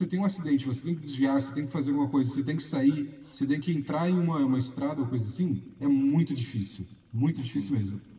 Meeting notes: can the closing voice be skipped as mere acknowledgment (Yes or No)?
Yes